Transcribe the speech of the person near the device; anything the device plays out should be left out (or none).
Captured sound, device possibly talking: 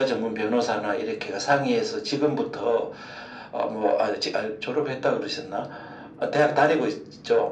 none